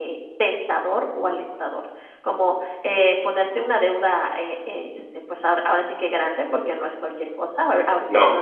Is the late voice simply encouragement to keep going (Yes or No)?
Yes